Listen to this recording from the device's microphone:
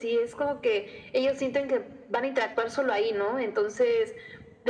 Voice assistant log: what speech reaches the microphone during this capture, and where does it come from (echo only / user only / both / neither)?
echo only